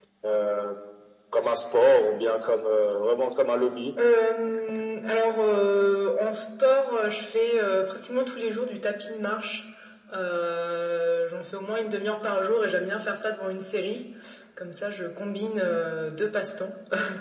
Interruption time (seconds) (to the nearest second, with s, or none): none